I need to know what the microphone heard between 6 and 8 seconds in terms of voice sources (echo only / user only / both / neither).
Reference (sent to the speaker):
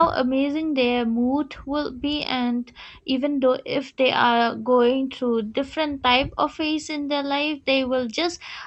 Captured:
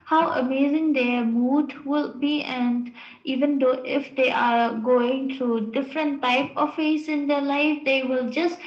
echo only